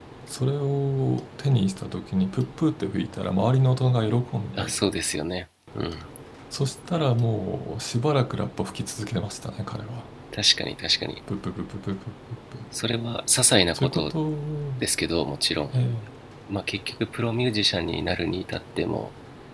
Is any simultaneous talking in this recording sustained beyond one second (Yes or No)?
No